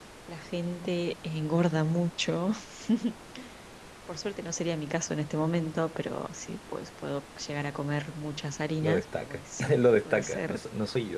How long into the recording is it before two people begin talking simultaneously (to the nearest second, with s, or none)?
9 s